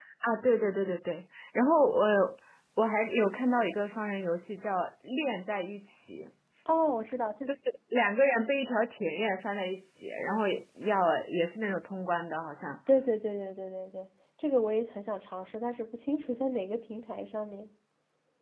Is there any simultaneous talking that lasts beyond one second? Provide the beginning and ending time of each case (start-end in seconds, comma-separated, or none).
none